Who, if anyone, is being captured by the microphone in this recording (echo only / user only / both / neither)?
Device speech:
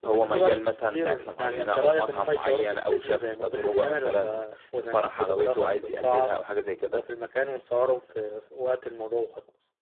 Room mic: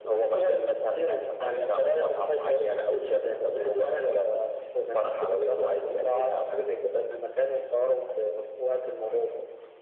echo only